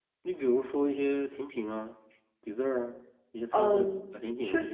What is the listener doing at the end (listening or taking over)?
taking over